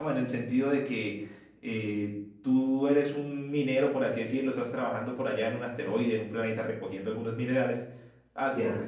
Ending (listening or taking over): listening